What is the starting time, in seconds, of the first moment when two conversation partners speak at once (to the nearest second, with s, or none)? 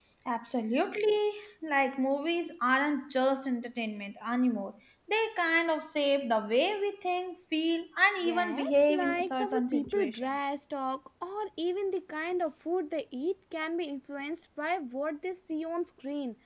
8 s